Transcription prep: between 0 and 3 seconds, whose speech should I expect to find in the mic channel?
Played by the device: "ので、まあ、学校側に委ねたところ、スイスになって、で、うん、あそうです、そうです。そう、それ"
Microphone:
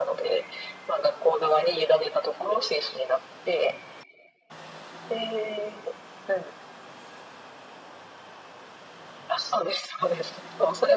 echo only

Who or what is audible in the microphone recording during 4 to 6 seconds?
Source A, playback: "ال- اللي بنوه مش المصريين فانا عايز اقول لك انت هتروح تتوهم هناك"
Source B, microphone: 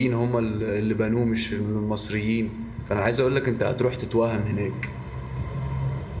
echo only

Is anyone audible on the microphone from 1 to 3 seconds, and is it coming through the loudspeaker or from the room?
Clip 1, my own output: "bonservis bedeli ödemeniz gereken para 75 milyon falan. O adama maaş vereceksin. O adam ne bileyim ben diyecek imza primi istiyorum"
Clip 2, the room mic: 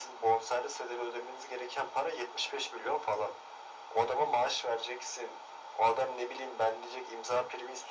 echo only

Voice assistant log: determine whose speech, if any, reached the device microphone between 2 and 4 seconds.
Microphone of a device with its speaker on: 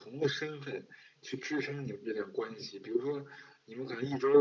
echo only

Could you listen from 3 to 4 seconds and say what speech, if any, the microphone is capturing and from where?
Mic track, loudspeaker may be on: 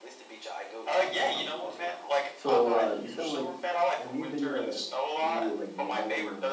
both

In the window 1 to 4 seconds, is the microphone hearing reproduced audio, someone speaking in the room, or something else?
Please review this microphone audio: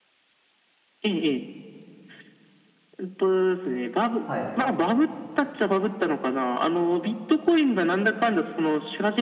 echo only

